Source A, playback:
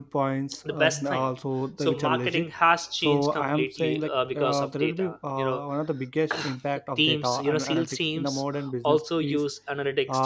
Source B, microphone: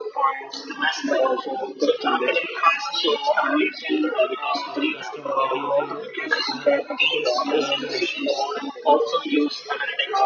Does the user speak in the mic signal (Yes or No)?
Yes